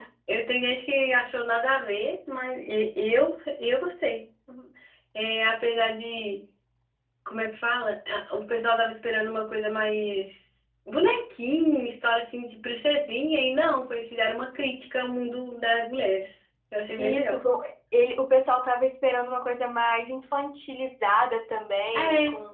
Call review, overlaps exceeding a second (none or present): none